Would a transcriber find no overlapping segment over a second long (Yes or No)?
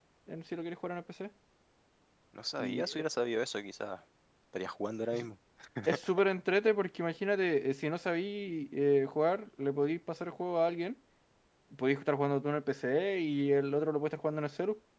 Yes